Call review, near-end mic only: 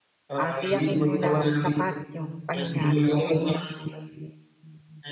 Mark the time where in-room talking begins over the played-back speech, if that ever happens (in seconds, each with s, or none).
0.4 s